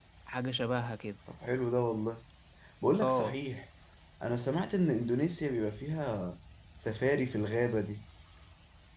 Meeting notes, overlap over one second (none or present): none